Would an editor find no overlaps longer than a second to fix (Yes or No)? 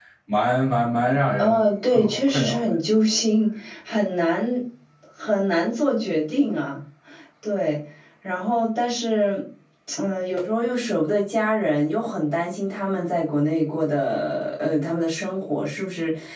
No